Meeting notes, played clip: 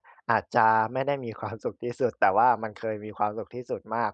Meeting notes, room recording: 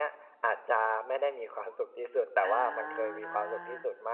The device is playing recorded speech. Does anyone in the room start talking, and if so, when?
2.4 s

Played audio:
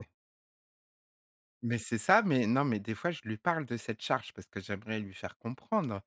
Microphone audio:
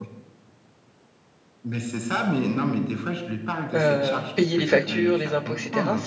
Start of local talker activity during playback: 3.7 s

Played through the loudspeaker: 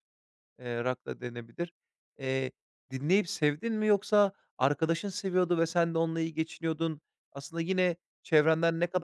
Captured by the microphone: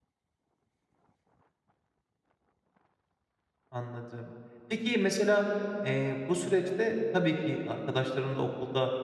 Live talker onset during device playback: 3.7 s

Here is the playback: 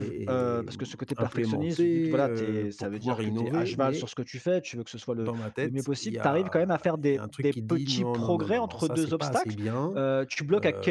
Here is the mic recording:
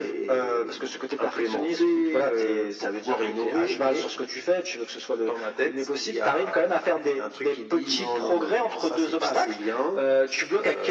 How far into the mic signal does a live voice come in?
none

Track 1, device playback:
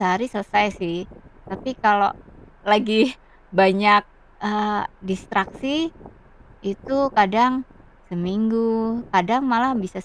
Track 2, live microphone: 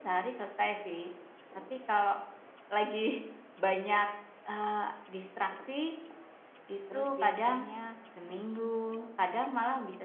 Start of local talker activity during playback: 6.8 s

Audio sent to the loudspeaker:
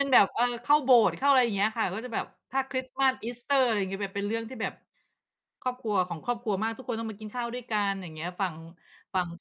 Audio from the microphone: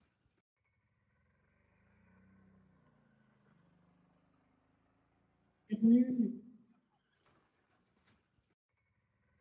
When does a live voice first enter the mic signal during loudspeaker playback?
5.7 s

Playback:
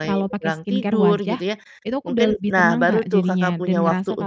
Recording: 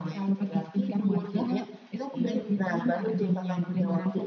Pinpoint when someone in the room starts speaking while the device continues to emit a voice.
1.3 s

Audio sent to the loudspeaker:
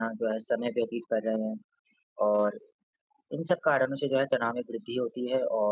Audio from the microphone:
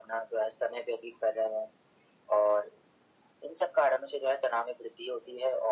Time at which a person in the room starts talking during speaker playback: none

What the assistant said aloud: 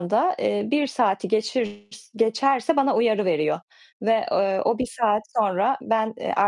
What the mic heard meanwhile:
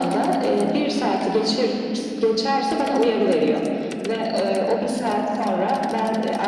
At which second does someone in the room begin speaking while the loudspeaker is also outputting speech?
none

